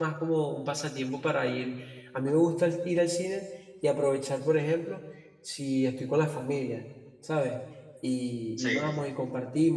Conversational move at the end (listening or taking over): listening